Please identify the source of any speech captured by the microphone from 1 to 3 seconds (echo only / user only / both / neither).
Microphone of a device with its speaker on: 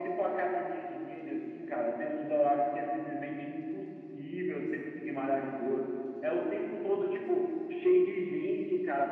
echo only